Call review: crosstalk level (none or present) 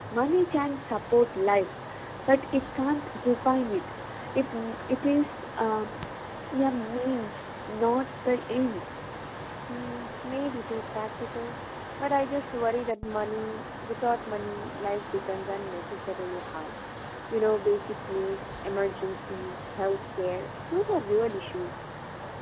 none